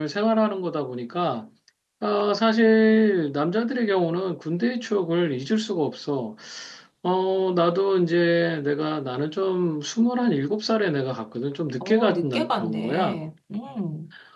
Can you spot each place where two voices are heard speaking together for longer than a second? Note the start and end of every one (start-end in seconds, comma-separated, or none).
11.8-13.2